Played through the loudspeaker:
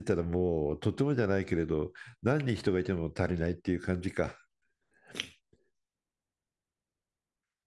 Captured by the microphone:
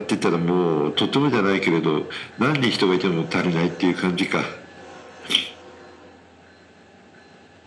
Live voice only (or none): none